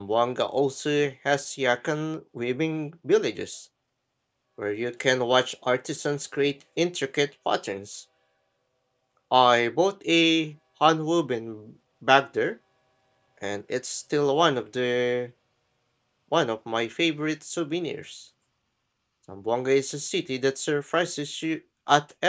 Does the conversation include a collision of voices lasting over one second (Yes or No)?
No